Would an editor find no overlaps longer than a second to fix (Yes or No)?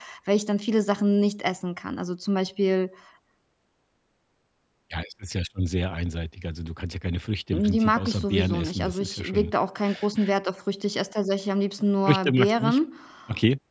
No